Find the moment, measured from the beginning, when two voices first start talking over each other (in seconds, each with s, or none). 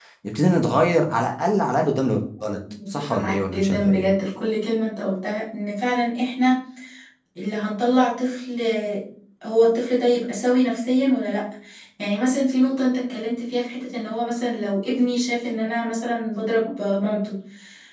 3.0 s